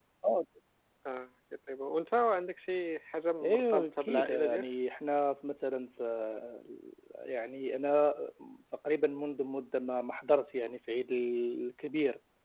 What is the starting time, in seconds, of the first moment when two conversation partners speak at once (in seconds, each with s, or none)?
3.4 s